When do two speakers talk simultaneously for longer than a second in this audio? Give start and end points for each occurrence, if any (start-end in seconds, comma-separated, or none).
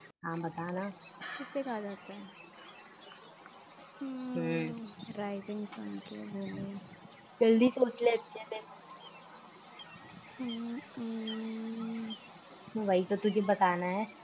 none